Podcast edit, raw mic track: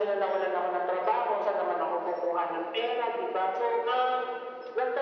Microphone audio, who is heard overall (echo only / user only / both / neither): echo only